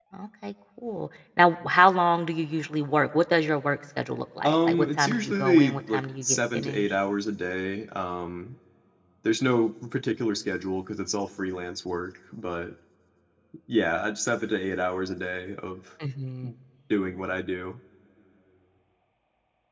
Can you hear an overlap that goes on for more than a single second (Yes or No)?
Yes